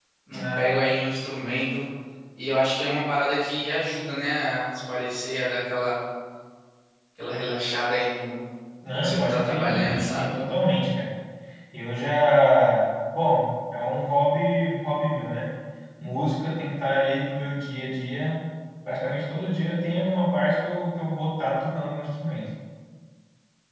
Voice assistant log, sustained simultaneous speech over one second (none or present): present